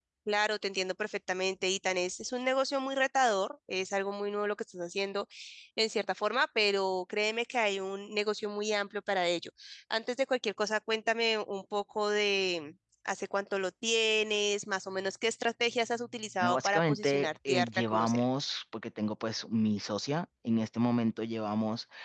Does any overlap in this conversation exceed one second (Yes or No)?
Yes